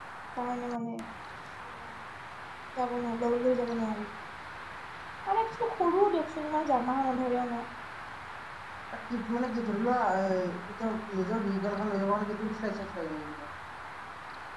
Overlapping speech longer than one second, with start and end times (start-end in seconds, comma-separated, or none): none